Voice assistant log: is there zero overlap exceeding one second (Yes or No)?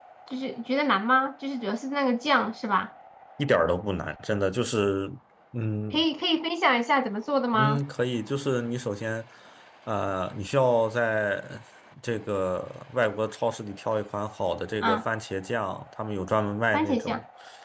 Yes